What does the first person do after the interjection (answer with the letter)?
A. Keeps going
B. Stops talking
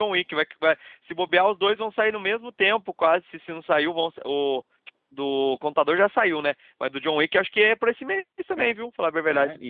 B